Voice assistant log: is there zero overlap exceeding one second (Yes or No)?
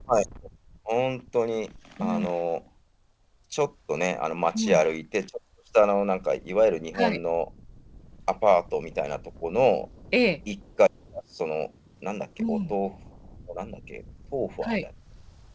Yes